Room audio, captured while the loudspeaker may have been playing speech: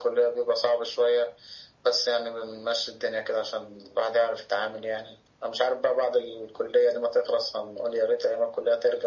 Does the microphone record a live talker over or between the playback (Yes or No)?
No